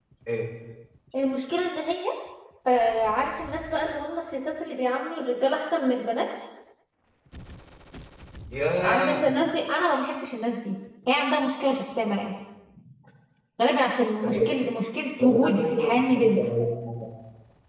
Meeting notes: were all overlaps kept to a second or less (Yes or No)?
No